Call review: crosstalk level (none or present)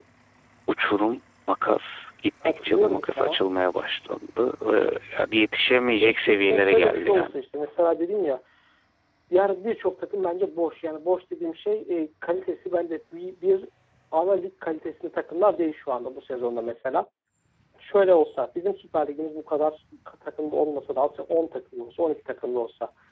present